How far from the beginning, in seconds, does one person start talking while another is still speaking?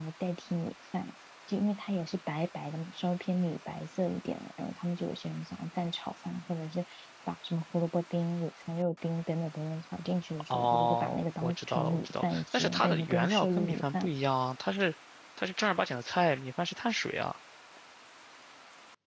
11 s

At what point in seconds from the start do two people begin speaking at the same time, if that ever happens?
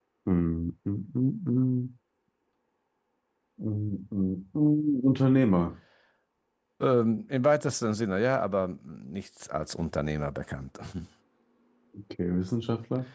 none

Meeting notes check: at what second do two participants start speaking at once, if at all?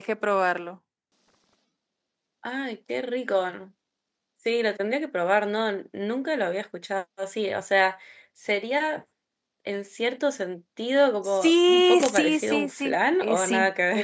11 s

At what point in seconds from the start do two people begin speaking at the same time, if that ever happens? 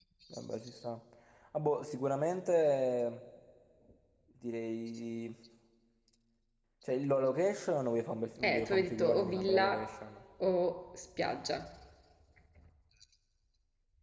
8 s

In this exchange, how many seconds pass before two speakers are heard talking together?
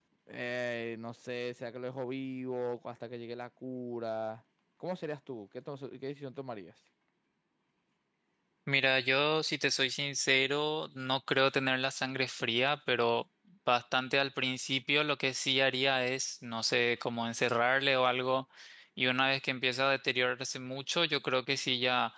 none

